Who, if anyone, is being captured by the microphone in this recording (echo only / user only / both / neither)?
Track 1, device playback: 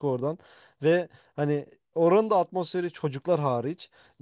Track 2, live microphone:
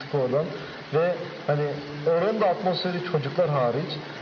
echo only